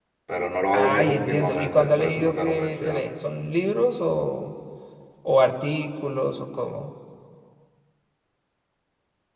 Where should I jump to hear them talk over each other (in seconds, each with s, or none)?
0.8 s